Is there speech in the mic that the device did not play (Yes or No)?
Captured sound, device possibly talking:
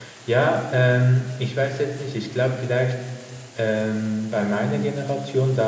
Yes